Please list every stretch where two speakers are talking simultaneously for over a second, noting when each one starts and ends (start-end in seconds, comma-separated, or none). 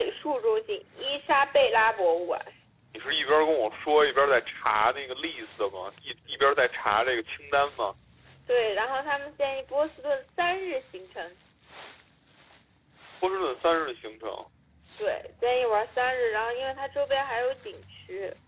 none